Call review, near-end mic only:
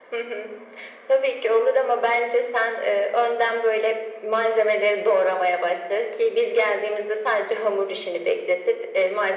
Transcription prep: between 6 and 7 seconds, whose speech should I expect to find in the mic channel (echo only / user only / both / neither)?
echo only